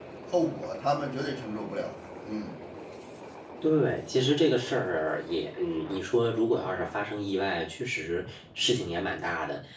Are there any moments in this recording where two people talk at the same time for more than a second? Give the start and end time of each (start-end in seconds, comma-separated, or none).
none